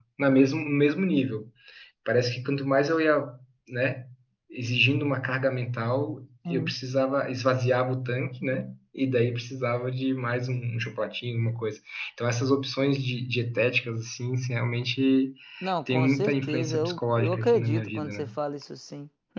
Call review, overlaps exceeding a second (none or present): present